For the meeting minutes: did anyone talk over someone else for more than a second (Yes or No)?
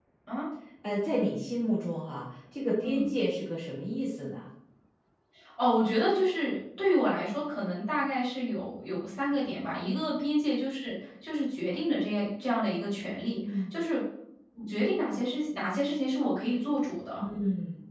No